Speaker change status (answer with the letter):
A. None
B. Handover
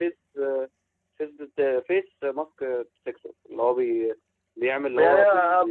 B